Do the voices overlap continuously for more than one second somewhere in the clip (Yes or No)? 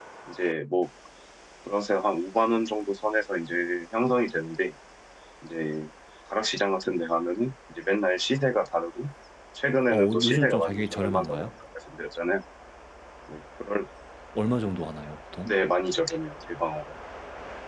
Yes